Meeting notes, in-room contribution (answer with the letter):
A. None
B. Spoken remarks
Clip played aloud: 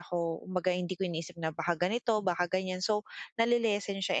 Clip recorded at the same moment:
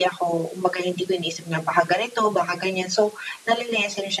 A